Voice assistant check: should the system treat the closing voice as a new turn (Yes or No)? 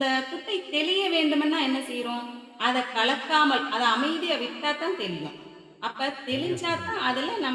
No